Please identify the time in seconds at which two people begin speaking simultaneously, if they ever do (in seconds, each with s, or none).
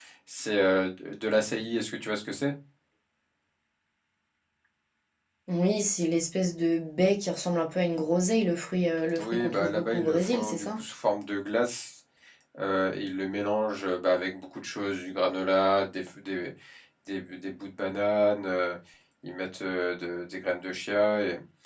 9.2 s